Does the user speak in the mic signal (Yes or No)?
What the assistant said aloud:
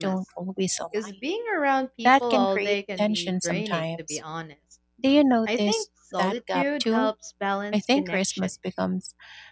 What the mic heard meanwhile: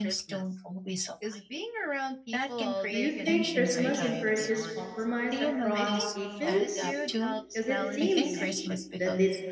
Yes